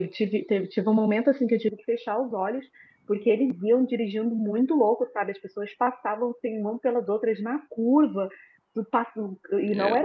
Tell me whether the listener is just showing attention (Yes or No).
Yes